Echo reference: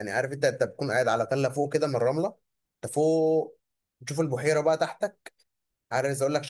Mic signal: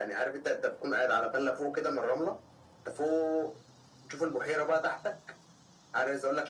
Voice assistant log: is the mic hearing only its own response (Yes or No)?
Yes